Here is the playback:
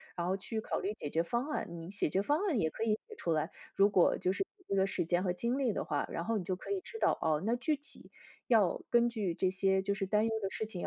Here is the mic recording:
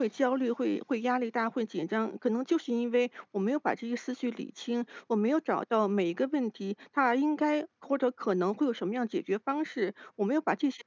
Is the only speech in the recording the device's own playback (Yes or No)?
No